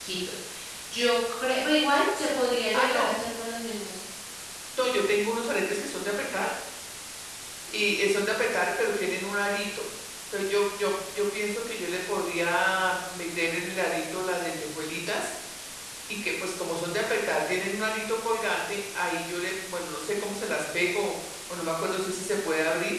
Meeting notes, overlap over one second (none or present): none